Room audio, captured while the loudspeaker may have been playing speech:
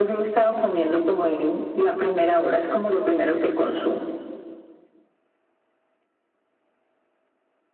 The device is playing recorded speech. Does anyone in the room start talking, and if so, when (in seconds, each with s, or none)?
none